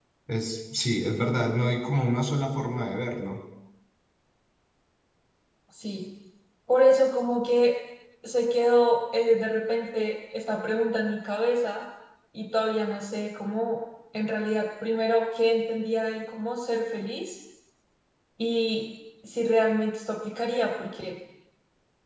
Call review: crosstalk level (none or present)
none